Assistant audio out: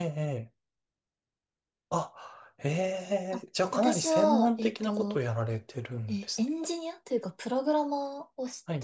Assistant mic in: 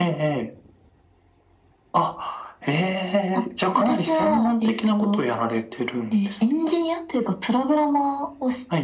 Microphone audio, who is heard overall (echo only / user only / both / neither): echo only